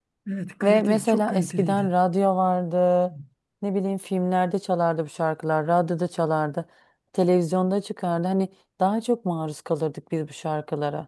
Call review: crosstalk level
present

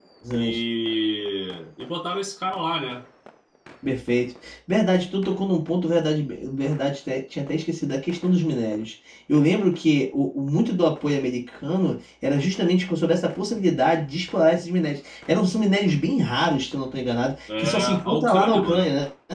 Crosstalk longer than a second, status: present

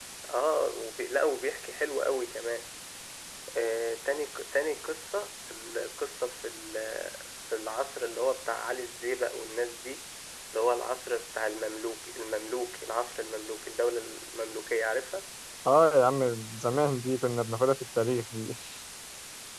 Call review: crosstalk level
none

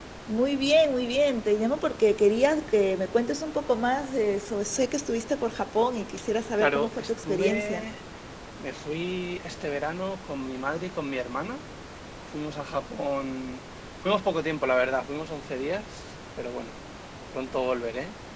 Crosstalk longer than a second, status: present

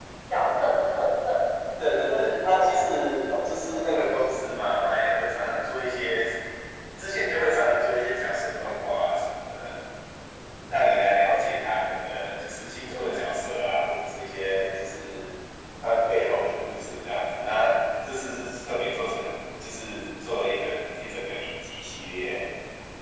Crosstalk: present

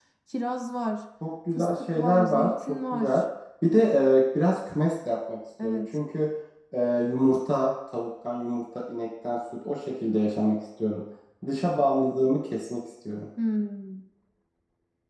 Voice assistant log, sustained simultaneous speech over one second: present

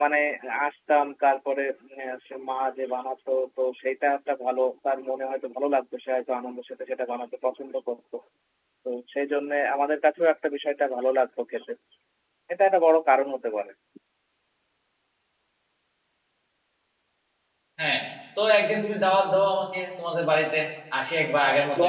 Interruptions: none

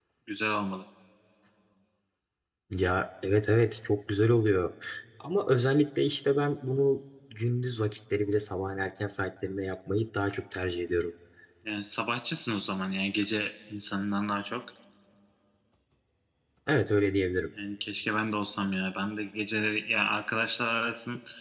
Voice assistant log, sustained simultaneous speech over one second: none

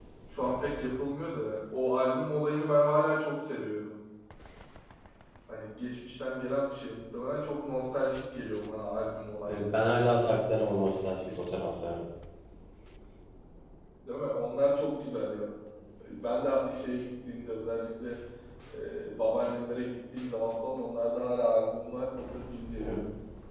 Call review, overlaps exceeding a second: none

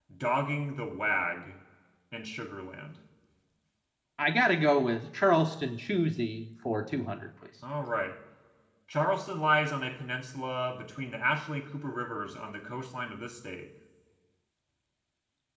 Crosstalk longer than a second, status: none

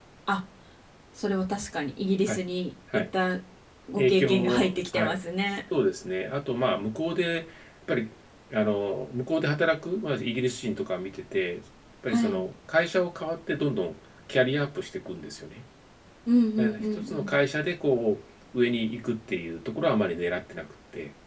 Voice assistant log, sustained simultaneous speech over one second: present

